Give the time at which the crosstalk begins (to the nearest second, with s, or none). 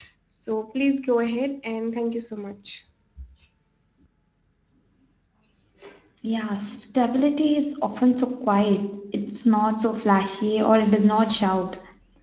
none